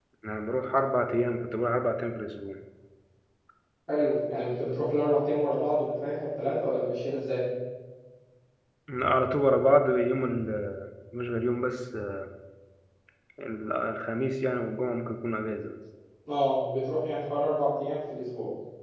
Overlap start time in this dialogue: none

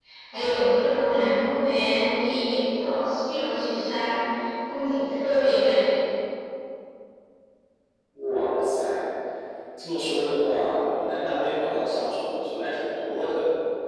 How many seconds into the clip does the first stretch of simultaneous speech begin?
none

